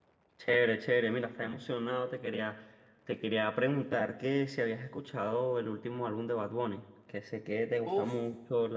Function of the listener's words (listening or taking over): listening